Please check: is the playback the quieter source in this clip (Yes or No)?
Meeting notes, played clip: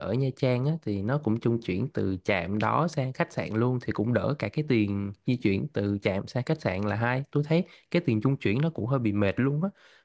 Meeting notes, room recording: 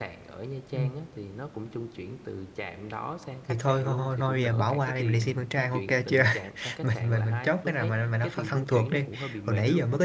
Yes